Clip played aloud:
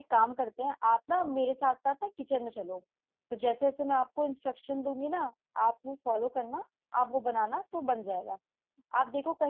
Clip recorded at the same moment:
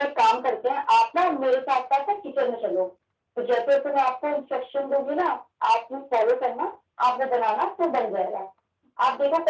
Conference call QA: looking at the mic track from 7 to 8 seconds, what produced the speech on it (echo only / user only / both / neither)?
echo only